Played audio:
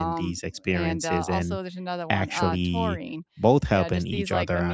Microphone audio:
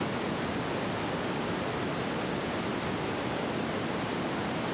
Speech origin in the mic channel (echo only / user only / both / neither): neither